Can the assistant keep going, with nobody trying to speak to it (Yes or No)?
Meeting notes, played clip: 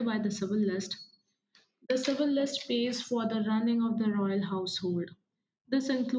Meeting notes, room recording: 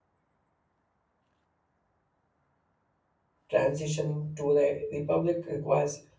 No